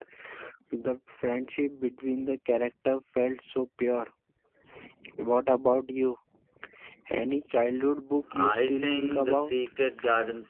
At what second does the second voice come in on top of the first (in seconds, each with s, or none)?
8.2 s